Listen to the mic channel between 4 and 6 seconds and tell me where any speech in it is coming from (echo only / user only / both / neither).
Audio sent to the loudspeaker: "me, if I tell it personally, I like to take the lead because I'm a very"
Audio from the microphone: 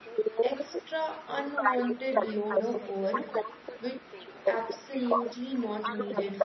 both